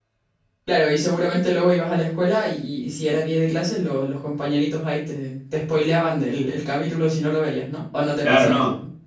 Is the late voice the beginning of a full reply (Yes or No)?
Yes